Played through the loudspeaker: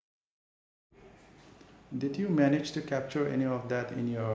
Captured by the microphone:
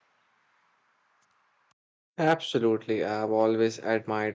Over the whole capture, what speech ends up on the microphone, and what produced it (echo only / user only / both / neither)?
user only